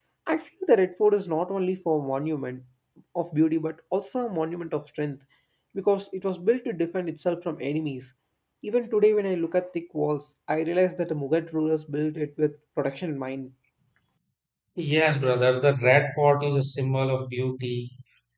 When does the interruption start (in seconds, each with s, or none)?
none